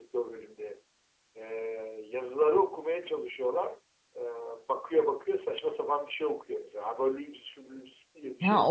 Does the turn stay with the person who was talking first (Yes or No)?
No